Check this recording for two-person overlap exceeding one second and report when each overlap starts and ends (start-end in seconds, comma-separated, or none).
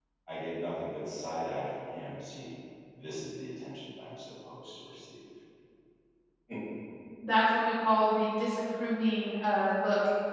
none